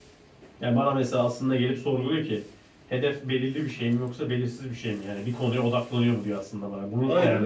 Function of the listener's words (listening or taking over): taking over